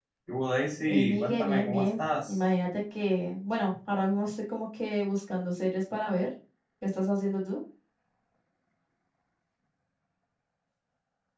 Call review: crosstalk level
present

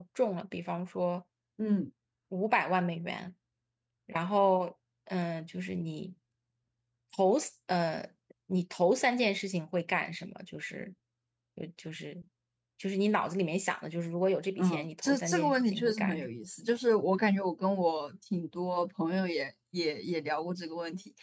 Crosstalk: present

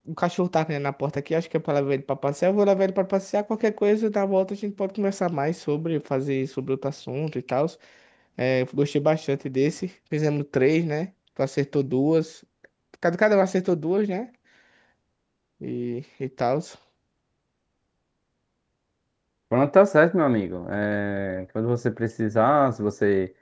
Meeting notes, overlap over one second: none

